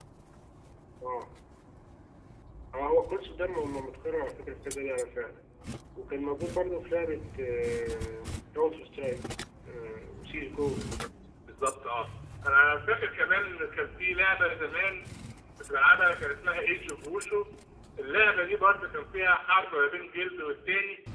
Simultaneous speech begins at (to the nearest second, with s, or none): none